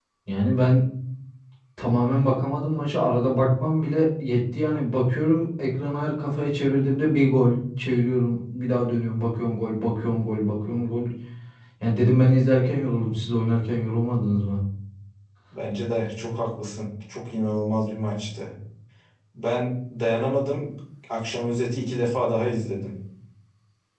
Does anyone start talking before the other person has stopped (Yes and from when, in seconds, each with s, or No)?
No